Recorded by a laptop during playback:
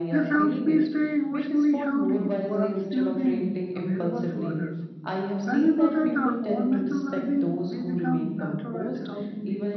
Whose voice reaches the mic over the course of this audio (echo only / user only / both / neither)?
both